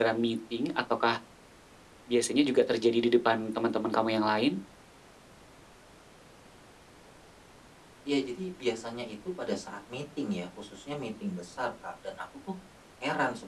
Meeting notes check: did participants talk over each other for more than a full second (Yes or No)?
No